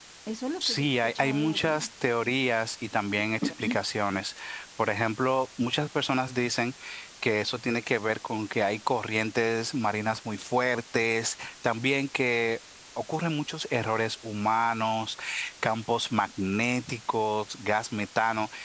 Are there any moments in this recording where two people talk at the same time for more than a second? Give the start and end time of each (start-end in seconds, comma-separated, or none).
0.6-1.9